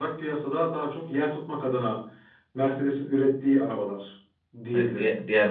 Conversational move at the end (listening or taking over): taking over